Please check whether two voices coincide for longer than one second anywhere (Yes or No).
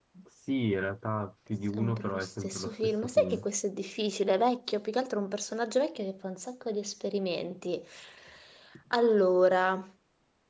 Yes